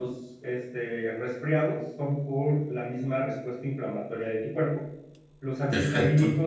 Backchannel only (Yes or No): Yes